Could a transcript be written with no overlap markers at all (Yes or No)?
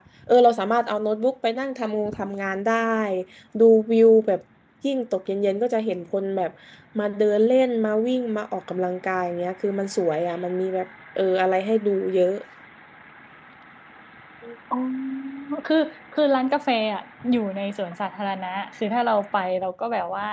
Yes